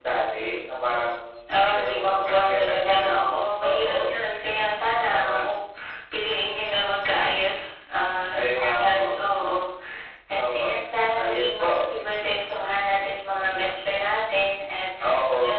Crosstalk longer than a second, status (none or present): present